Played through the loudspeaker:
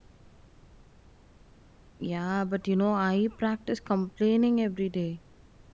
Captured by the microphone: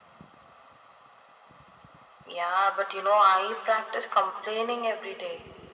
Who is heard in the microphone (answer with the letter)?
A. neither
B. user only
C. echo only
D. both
C